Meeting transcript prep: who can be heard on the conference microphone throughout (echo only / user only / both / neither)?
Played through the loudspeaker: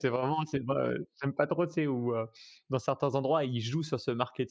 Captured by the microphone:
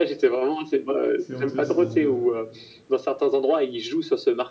both